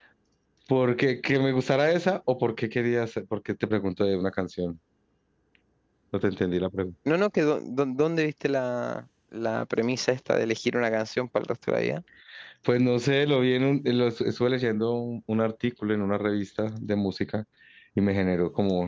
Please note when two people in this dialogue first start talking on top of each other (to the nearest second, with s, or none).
none